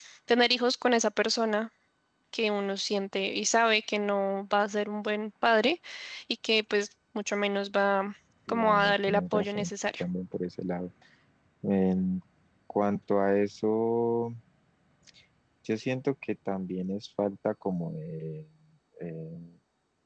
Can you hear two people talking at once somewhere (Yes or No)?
Yes